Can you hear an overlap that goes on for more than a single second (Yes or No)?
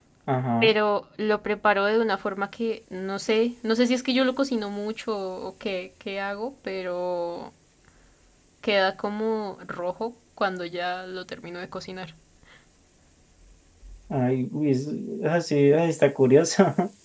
No